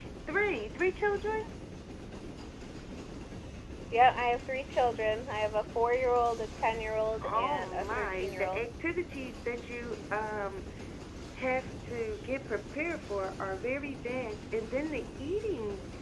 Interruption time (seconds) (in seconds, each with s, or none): 7.2 s